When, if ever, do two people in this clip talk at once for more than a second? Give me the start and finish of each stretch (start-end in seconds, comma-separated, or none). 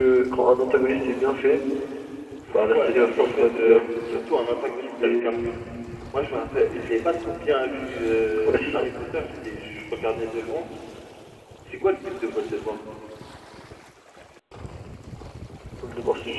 2.7-4.2